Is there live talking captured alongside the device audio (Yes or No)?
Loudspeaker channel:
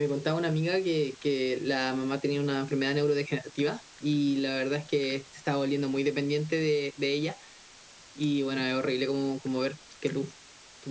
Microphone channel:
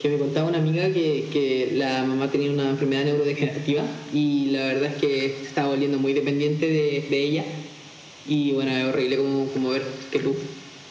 No